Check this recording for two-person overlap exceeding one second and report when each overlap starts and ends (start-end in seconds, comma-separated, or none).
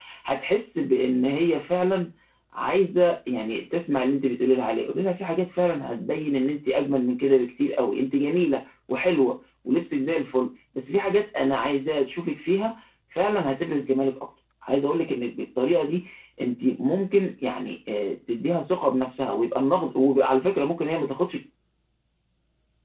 none